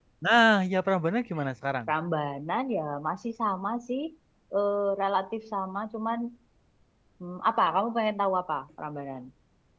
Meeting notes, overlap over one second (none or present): none